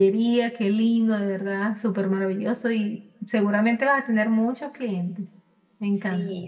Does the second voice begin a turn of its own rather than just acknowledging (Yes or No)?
Yes